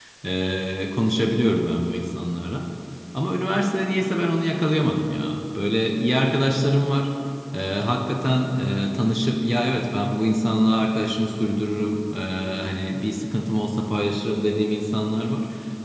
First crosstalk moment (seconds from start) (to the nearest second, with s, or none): none